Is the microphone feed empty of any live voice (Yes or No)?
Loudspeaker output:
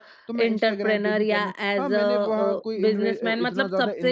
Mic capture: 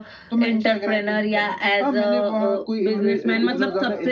No